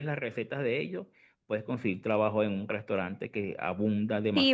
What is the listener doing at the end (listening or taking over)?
taking over